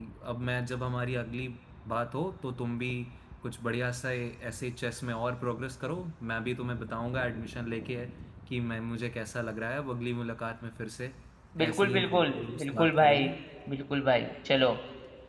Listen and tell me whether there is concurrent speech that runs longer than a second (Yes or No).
Yes